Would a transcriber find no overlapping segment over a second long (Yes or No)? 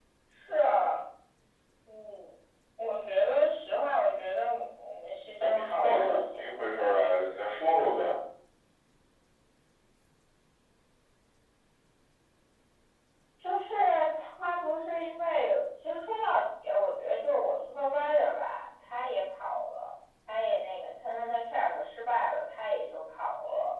No